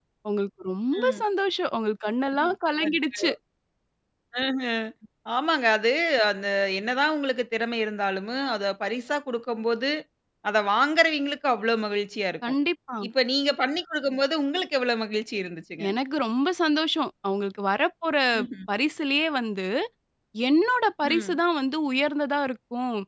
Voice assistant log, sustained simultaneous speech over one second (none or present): none